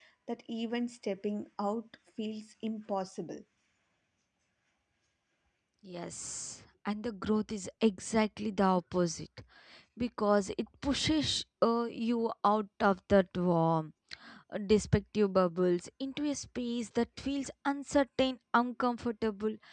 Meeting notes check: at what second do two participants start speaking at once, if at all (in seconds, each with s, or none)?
none